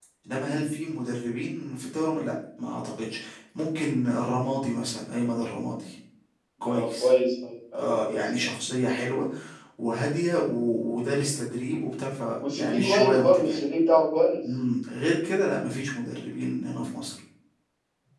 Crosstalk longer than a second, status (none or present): present